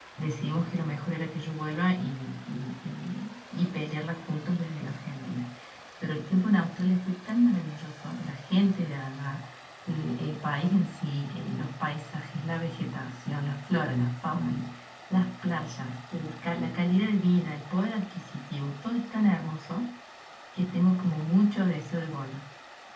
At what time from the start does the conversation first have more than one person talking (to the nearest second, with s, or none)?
none